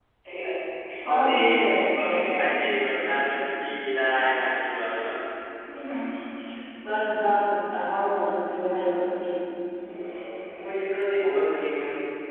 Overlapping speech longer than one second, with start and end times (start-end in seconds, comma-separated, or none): 1.1-2.3